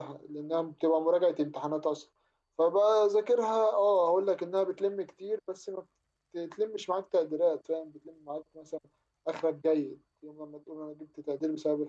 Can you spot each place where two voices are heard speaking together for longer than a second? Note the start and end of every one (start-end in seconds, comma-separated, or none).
none